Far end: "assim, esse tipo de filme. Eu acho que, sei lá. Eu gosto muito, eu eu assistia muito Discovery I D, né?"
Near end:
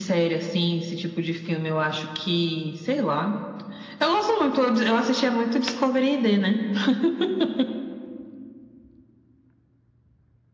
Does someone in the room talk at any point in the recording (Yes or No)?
No